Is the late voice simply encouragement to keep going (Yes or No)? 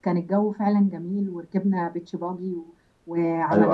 No